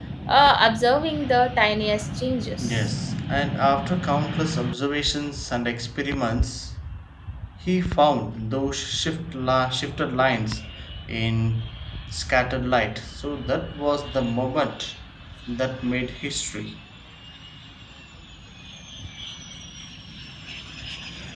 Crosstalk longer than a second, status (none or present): none